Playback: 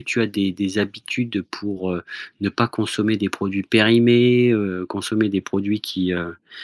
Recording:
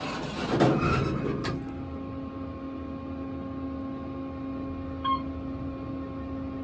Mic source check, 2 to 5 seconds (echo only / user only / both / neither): neither